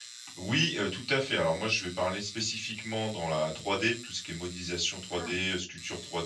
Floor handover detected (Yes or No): No